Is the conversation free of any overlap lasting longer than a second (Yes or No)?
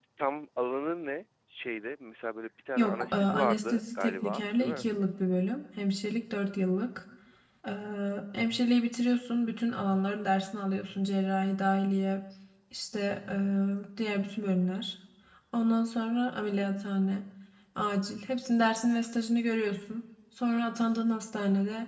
No